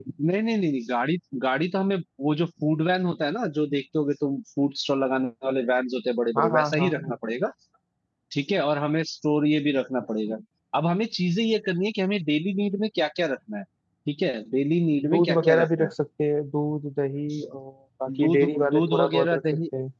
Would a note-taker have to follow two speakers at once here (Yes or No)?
Yes